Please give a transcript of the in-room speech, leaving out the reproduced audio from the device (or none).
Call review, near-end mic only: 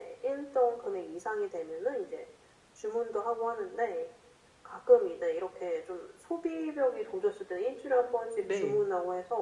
네.